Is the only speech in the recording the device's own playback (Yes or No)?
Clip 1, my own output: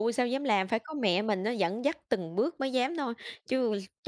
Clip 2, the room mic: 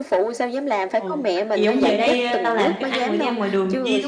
No